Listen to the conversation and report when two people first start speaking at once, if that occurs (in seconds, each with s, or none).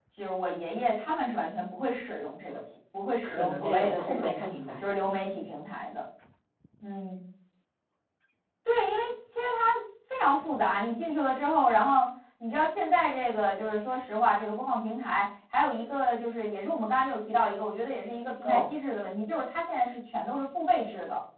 3.2 s